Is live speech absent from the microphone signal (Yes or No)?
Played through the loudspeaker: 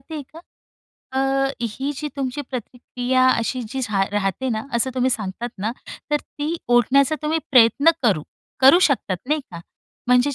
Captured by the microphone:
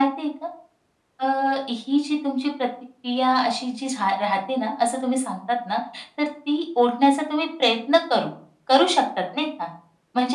Yes